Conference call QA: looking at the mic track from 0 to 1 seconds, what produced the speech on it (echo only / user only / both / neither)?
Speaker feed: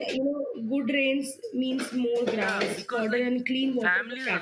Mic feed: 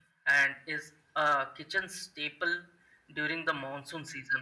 user only